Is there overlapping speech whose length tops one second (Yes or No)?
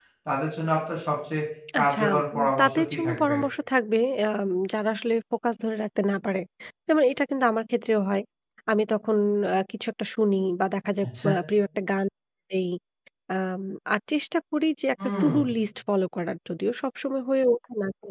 Yes